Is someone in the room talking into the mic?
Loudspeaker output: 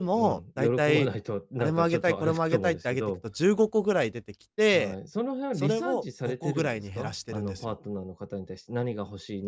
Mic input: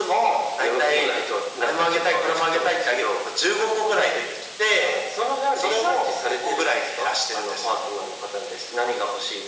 No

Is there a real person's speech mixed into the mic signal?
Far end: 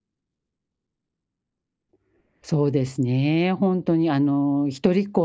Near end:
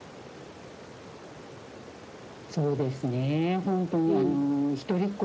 Yes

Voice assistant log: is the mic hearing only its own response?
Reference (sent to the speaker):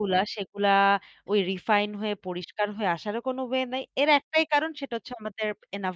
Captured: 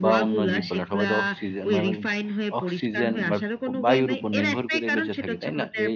No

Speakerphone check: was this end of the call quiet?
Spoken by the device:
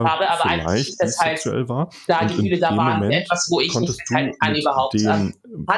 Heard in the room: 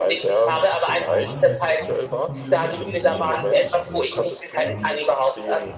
No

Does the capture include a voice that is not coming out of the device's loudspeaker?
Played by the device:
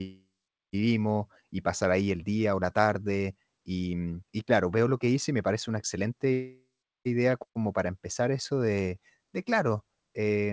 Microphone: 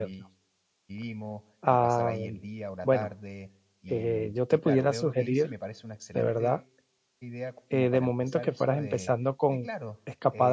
Yes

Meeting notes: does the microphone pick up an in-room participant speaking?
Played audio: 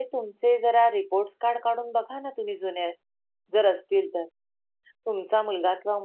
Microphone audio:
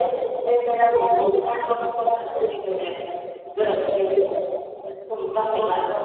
No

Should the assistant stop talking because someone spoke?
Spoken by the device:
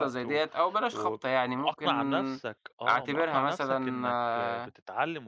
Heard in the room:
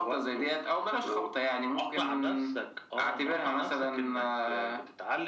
No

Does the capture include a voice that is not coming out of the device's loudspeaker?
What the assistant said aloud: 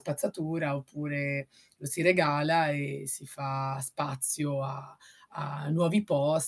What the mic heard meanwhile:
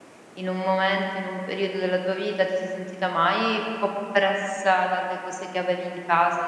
Yes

